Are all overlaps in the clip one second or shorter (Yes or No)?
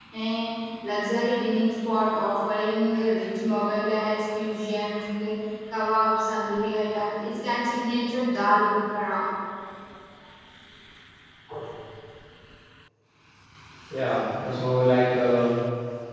Yes